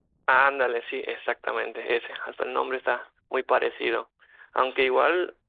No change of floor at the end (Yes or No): Yes